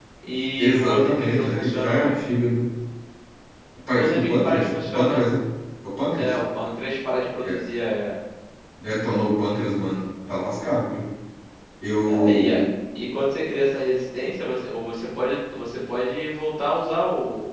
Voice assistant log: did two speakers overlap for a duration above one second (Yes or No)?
Yes